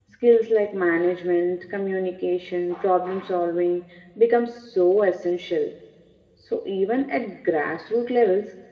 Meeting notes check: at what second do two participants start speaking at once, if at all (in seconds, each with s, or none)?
none